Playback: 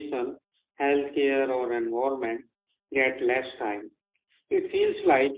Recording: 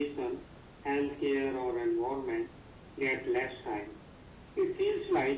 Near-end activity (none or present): none